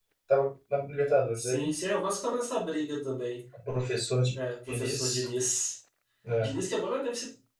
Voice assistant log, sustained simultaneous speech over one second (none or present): none